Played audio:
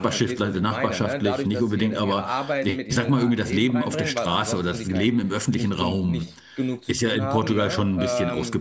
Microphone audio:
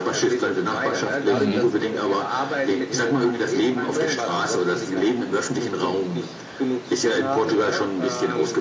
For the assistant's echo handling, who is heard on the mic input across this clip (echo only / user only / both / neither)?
both